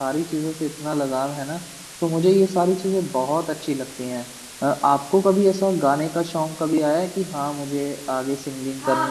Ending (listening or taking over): taking over